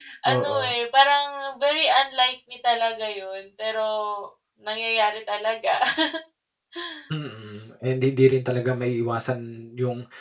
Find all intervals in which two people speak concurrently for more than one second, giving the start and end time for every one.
none

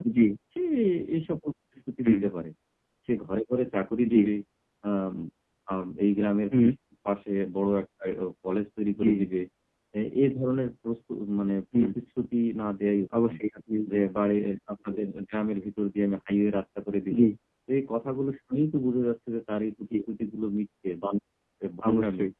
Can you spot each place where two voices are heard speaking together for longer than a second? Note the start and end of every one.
none

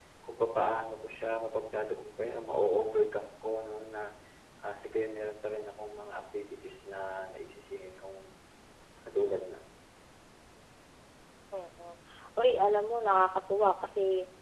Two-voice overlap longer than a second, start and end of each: none

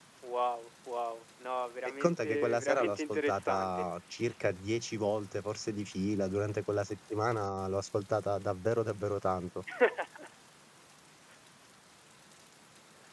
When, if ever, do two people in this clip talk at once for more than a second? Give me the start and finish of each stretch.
2.0-3.9

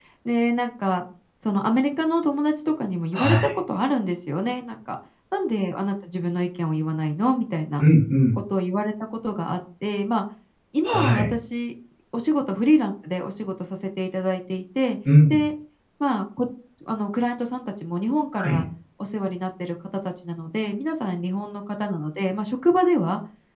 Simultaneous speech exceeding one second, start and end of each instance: none

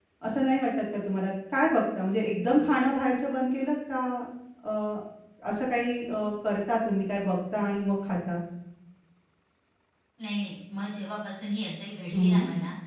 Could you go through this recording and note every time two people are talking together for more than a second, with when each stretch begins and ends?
none

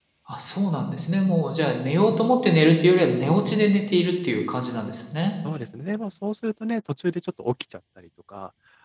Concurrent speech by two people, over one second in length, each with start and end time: none

